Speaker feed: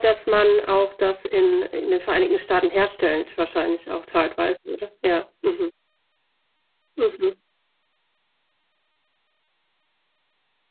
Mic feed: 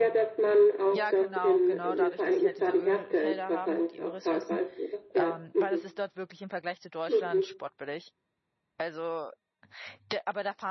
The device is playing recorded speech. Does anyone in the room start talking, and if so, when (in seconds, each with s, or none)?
1.0 s